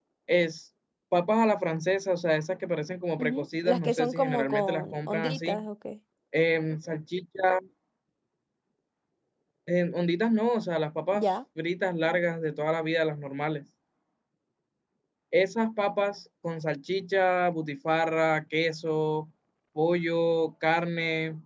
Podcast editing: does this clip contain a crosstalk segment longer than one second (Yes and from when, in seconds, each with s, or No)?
Yes, from 3.2 s